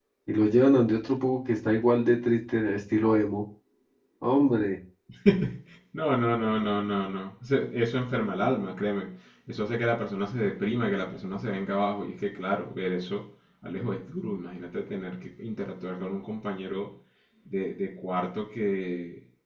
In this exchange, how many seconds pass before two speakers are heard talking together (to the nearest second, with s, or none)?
none